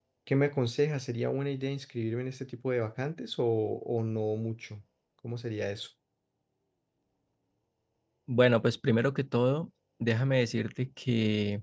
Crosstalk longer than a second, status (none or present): none